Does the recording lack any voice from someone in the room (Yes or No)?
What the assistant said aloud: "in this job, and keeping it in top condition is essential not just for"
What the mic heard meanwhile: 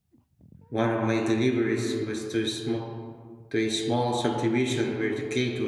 No